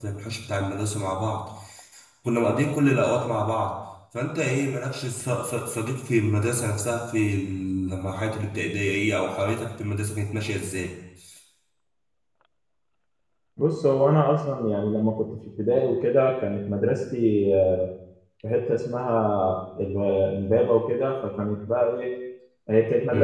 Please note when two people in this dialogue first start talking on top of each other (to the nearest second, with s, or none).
none